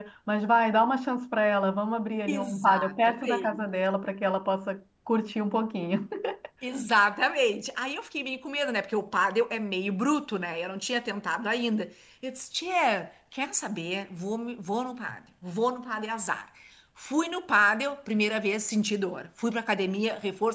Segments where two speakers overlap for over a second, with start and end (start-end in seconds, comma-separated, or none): 2.3-3.6